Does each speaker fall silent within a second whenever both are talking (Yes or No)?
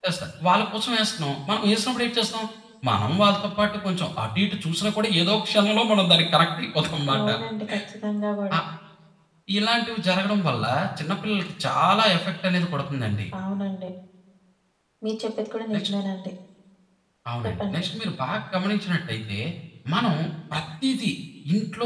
Yes